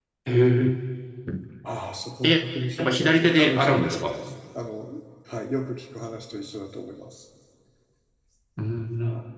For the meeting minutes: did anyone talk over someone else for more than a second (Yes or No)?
Yes